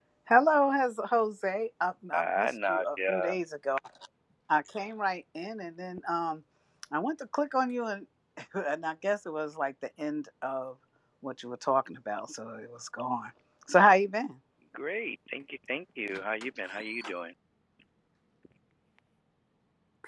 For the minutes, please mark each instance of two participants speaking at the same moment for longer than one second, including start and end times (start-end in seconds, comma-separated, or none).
2.1-3.4